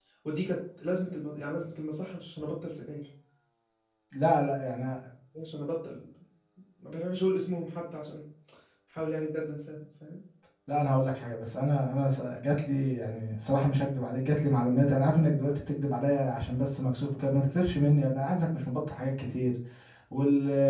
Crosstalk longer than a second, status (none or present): none